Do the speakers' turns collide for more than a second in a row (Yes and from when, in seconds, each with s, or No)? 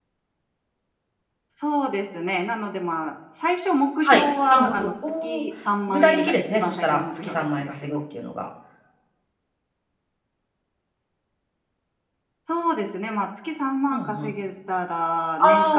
Yes, from 4.0 s